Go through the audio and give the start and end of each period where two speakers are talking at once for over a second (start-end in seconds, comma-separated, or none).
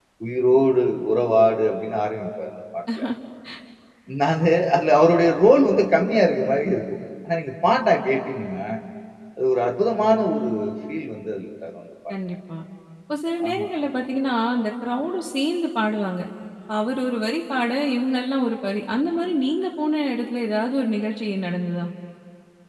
none